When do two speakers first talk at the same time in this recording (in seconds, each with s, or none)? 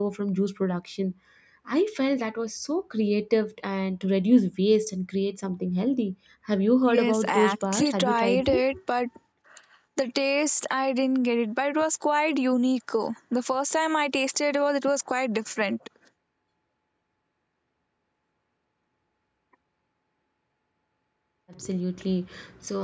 6.9 s